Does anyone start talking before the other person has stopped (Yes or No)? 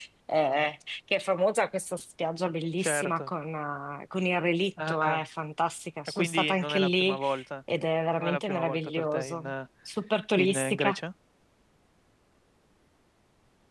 Yes